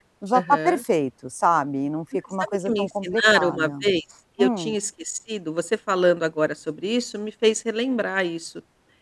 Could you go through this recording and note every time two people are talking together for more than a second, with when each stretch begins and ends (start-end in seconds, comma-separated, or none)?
2.4-3.7